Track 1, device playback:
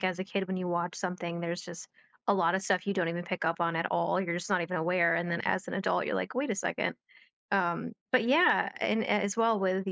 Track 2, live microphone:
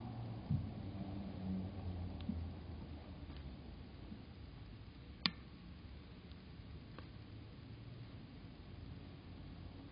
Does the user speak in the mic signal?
No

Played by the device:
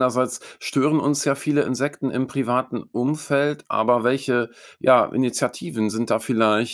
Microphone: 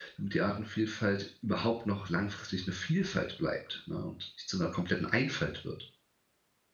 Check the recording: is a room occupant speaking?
Yes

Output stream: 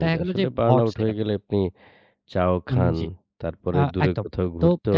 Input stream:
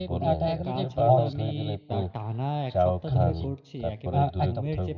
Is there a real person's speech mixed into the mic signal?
Yes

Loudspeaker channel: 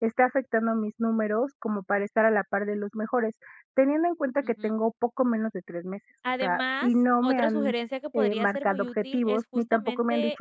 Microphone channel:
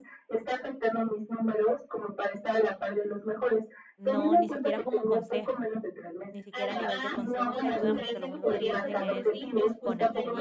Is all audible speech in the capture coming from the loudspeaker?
No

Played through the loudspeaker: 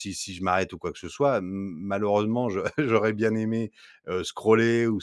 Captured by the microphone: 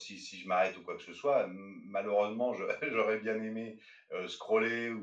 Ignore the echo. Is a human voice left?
No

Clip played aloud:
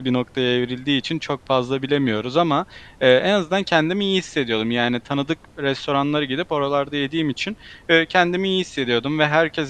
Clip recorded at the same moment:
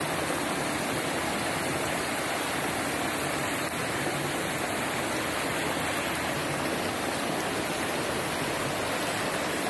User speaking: No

